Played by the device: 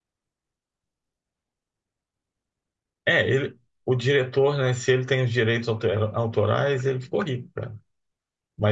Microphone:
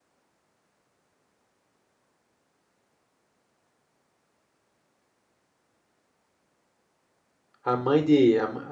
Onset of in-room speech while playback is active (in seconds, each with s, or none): 7.6 s